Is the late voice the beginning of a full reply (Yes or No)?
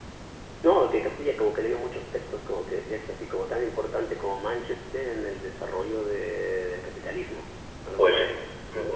Yes